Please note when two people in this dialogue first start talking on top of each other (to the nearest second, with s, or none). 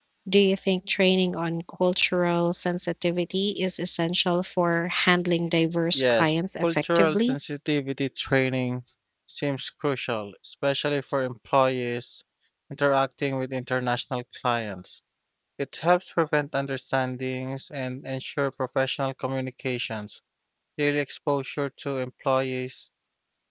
6 s